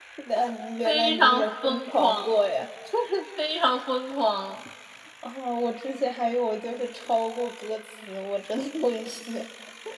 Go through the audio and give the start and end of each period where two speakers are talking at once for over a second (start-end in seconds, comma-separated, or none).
0.8-2.2